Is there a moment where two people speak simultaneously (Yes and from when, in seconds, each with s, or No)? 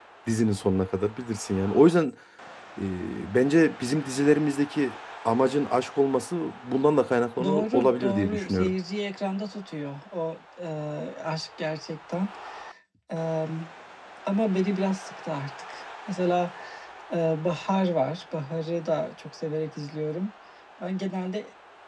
Yes, from 7.4 s